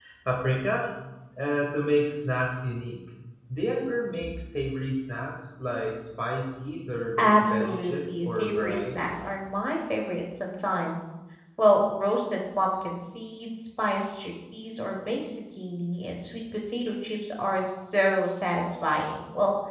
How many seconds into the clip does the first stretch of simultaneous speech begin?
7.2 s

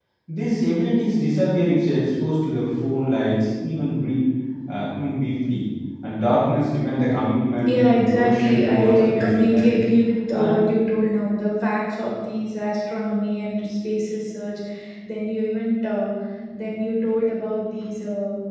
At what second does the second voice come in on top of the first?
7.4 s

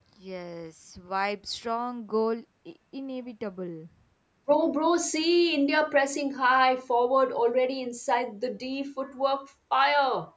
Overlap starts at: none

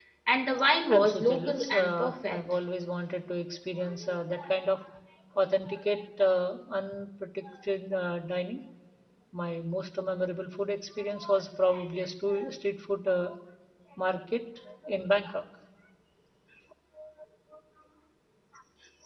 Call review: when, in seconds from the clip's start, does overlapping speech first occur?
0.9 s

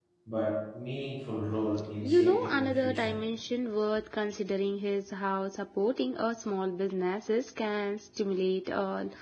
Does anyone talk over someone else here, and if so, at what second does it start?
2.0 s

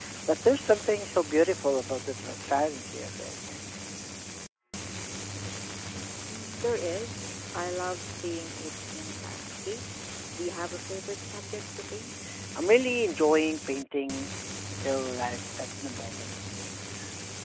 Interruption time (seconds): none

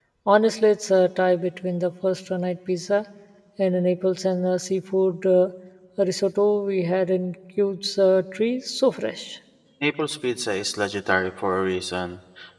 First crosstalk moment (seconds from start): none

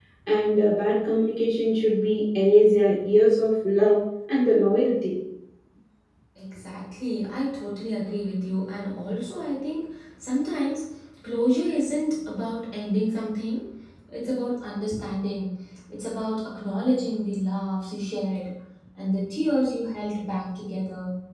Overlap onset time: none

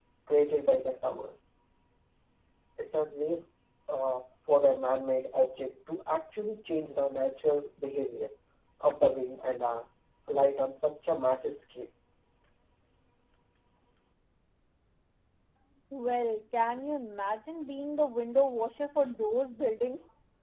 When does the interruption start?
none

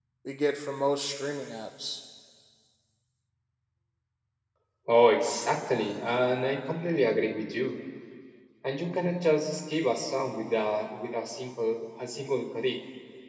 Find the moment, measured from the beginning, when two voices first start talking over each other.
none

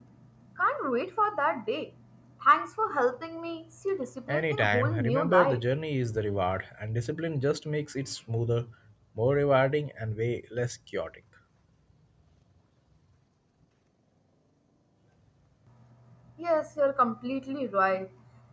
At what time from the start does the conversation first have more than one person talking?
4.3 s

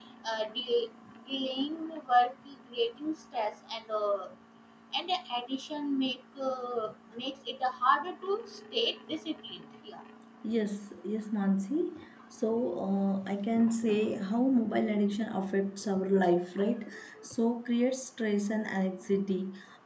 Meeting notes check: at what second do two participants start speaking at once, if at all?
none

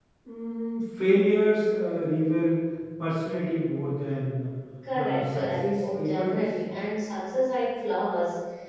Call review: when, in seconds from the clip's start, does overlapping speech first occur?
4.9 s

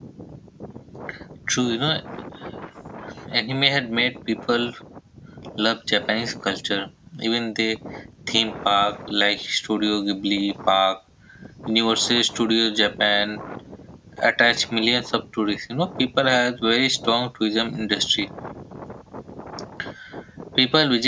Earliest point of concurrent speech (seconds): none

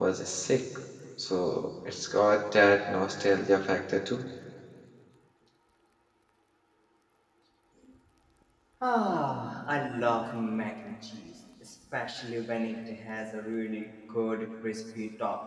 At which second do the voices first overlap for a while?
none

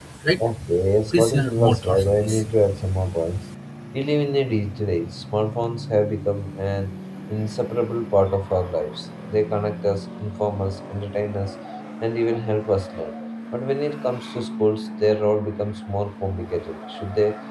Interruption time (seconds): 1.1 s

